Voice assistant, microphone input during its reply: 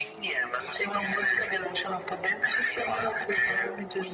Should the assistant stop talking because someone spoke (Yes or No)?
No